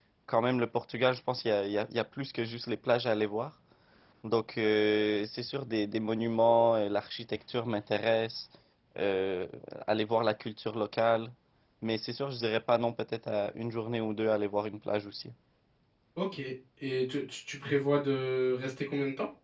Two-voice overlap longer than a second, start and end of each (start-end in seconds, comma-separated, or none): none